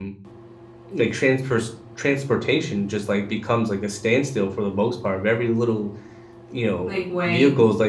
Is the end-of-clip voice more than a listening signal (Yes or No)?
No